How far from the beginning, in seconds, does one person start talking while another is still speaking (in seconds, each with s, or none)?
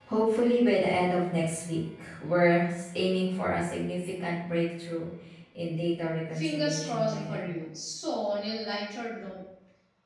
6.3 s